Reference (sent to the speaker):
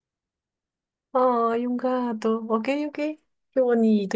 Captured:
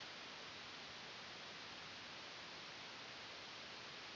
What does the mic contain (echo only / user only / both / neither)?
neither